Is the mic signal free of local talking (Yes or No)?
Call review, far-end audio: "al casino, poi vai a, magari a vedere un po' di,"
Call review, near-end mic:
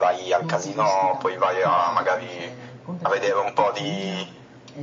No